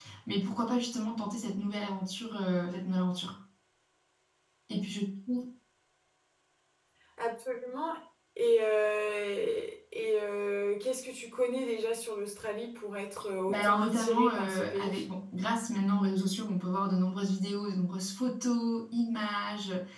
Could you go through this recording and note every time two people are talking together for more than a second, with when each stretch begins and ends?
13.5-15.0

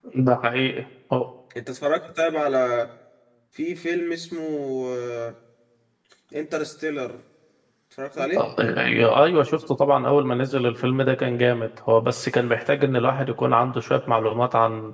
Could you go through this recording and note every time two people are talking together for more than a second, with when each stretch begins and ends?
none

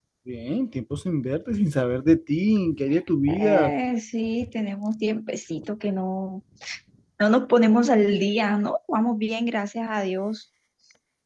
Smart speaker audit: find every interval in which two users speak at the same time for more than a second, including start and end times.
none

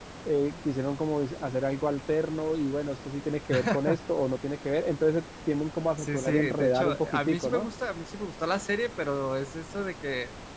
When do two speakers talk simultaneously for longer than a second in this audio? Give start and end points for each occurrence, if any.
6.0-7.7

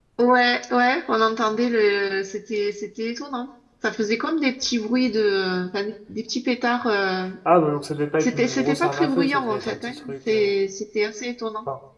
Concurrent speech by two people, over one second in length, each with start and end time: 8.2-10.4

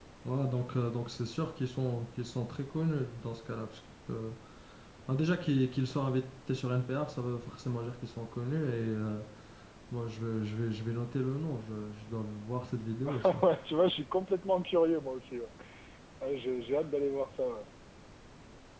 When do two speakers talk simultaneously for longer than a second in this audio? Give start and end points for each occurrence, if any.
none

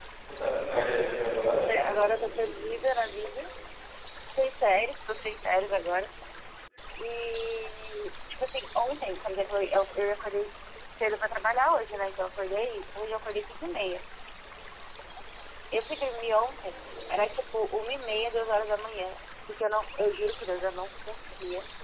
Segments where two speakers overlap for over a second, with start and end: 1.4-3.0

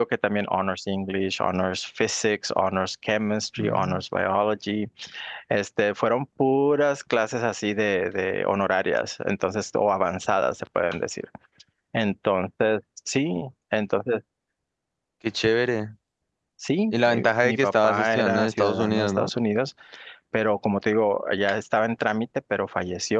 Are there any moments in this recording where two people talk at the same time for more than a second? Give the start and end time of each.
16.9-19.3

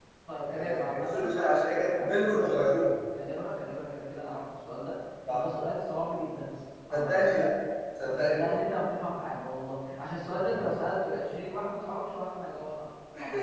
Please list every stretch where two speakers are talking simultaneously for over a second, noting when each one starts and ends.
0.5-2.5

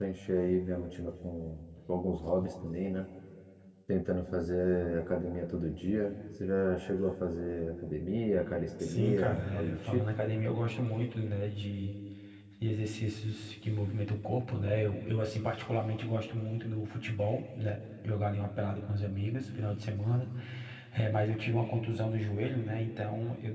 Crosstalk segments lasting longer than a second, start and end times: 8.8-10.1

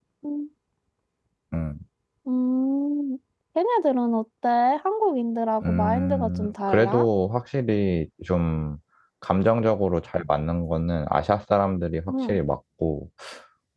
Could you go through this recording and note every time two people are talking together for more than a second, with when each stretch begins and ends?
5.6-7.1

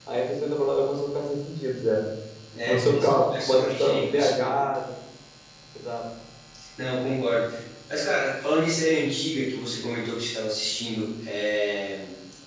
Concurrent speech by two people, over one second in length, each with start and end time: 2.7-4.3

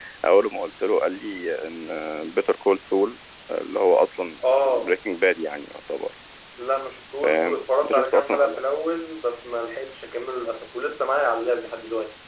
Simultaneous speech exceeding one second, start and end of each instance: 7.2-8.6

